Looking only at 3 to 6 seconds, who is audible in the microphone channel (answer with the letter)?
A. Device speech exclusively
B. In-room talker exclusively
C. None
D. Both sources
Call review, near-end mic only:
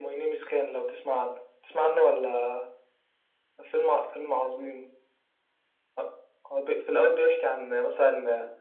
A